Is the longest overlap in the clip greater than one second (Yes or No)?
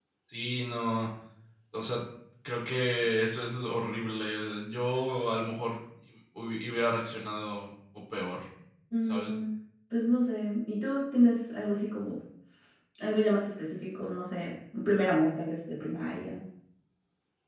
No